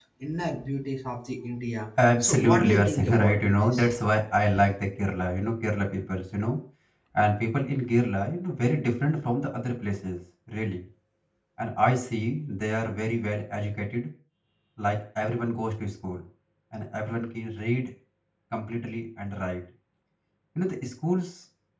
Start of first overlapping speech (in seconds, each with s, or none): 2.2 s